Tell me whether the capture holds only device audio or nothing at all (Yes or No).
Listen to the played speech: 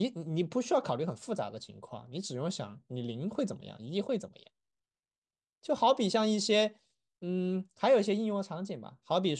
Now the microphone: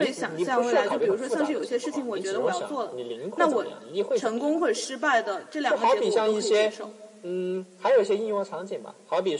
No